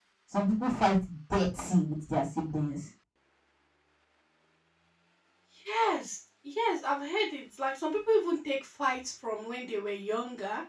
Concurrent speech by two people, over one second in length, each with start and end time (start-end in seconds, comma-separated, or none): none